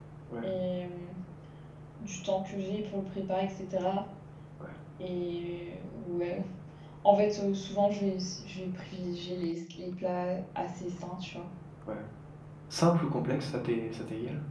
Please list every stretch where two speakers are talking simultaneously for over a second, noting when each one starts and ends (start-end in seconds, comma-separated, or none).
none